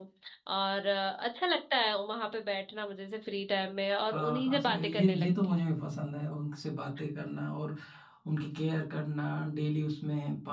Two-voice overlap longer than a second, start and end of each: 4.0-5.6

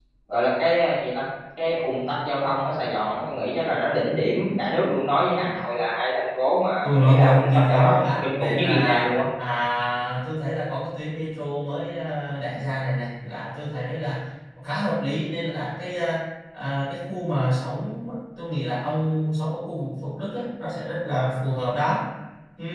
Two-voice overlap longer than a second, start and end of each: 6.8-9.1

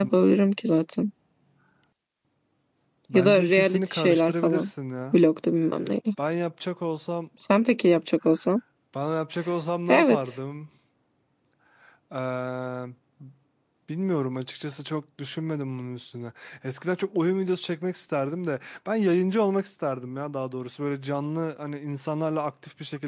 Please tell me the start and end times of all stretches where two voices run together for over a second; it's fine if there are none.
3.1-4.7

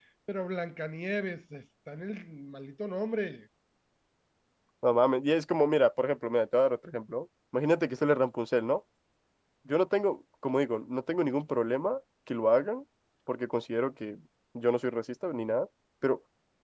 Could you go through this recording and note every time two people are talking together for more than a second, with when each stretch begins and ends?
none

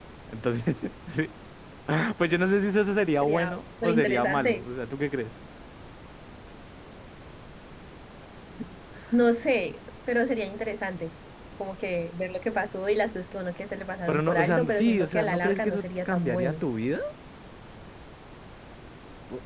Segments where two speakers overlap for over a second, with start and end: 3.2-4.5, 14.1-16.5

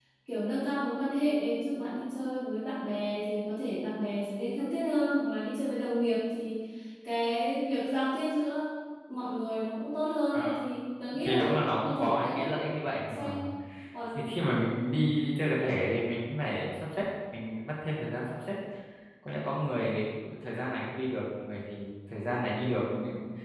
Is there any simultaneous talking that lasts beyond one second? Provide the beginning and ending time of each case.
11.2-12.5

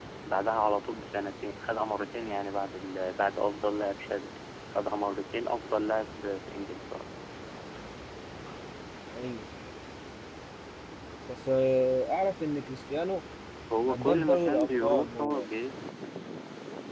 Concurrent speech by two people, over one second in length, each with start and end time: 13.9-15.5

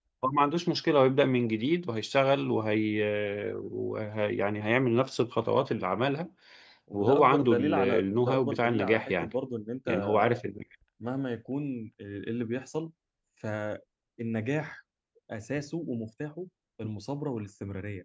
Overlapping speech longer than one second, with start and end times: 6.9-9.3

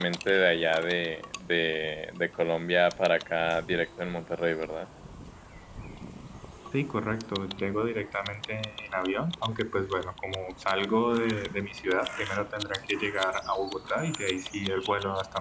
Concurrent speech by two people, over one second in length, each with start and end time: none

